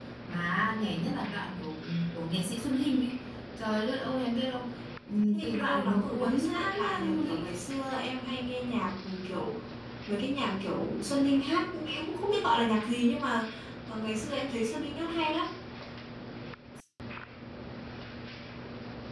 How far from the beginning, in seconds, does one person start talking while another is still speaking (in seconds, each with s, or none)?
5.3 s